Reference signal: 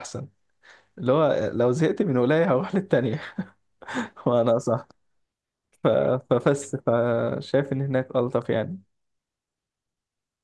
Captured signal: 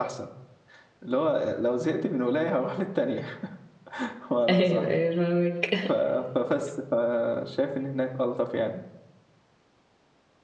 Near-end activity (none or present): present